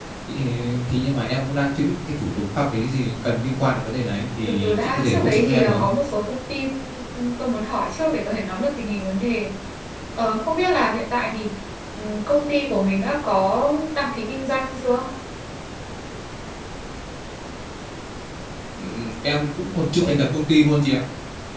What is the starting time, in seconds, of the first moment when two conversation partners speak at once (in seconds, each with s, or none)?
4.6 s